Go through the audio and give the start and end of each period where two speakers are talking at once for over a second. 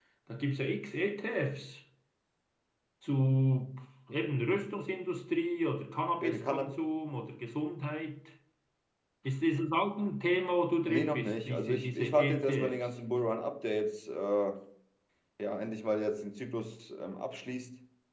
10.8-12.8

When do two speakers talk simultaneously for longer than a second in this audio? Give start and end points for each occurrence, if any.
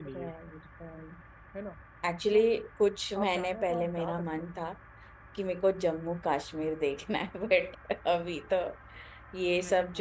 3.2-4.4

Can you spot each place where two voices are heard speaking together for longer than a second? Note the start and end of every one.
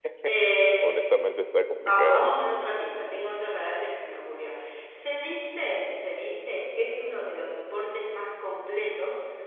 none

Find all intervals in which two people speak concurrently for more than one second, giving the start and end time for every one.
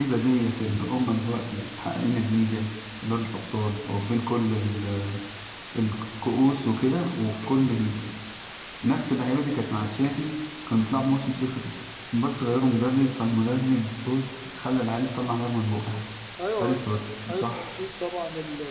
none

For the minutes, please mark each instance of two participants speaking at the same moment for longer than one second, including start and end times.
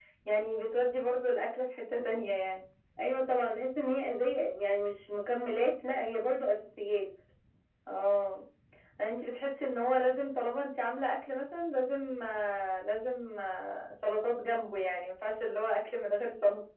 none

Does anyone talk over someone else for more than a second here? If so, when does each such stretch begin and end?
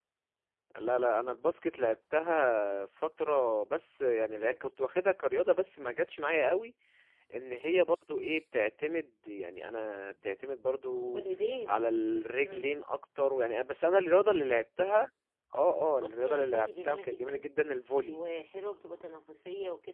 16.0-17.5

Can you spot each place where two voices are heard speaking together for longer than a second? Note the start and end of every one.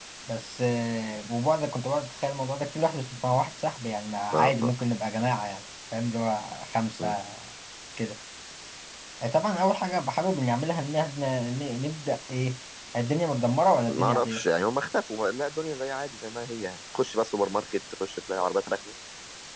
none

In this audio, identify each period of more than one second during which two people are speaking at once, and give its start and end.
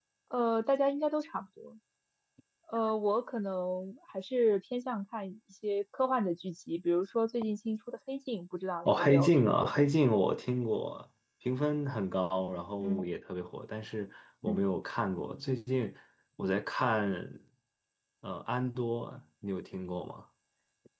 8.8-10.1

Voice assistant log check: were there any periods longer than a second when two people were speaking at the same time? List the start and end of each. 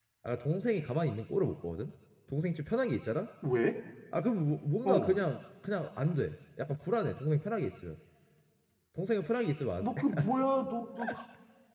none

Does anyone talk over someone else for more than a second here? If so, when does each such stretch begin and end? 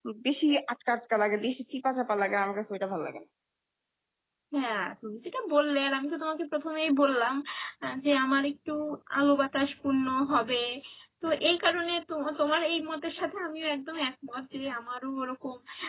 none

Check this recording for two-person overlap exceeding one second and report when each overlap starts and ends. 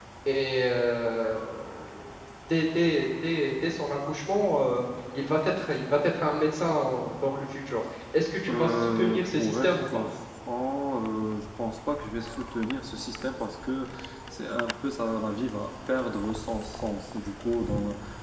8.5-9.9

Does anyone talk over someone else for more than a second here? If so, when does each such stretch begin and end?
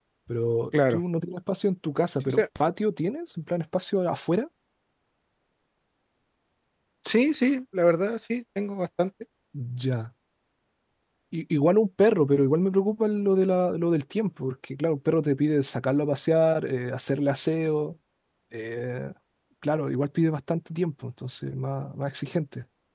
none

